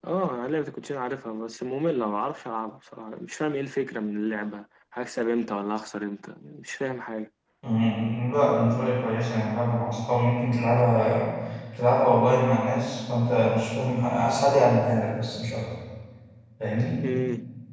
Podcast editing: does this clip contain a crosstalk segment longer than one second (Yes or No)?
No